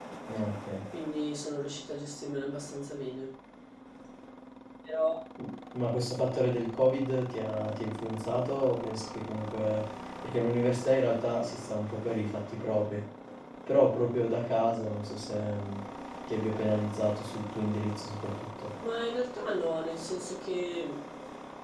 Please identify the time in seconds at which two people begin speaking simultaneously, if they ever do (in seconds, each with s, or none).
none